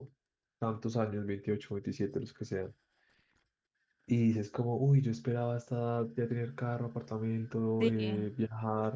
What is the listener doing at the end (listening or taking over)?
listening